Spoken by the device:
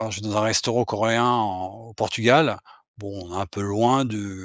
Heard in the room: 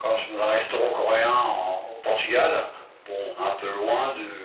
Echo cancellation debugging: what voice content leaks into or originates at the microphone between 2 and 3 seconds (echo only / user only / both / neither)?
echo only